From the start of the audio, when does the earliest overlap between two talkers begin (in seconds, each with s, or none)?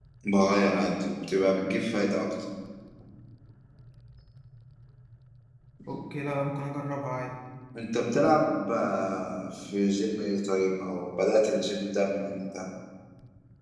none